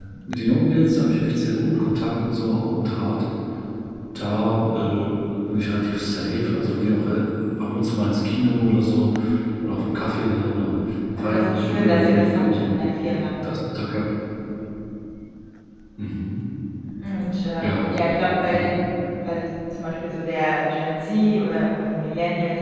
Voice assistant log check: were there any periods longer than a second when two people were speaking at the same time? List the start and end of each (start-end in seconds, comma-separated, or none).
11.2-12.8